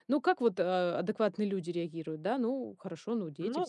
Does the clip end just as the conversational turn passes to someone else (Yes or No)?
Yes